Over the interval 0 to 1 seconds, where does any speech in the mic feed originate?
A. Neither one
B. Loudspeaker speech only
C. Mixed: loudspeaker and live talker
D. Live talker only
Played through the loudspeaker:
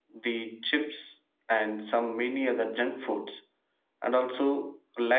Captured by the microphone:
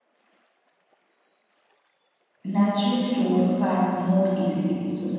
A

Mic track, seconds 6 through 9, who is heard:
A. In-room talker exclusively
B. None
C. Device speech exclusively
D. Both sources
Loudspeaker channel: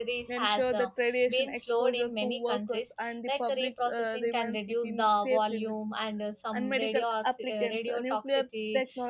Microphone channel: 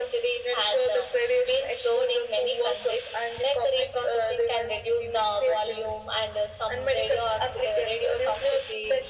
C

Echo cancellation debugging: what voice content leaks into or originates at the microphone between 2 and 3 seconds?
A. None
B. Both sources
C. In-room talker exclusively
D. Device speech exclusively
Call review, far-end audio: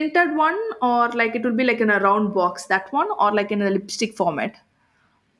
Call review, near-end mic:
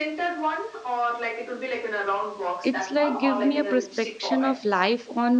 B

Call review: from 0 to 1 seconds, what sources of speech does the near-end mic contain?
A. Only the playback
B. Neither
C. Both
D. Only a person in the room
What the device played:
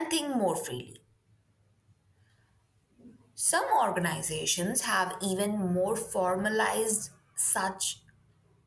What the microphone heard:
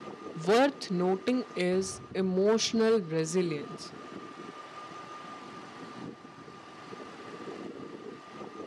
D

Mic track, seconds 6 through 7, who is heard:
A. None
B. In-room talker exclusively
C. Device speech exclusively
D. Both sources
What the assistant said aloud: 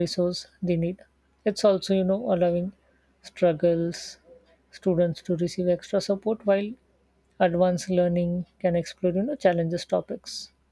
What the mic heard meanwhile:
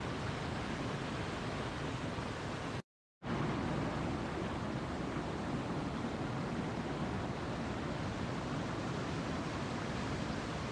A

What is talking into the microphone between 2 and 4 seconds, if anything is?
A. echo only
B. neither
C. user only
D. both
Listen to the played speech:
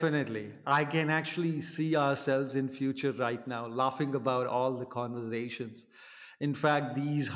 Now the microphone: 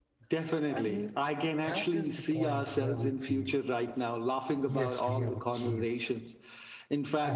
D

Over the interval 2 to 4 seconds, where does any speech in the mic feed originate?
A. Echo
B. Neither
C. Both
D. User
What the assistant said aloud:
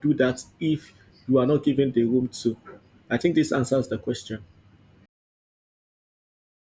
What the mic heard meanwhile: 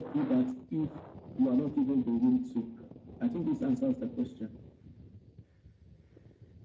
A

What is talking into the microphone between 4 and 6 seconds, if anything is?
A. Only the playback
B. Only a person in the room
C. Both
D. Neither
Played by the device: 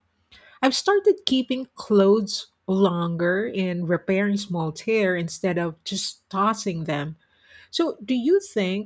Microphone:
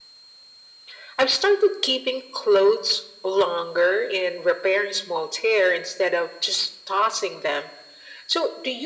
A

